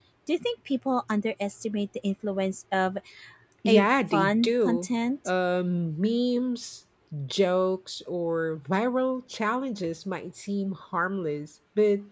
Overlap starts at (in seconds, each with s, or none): 3.7 s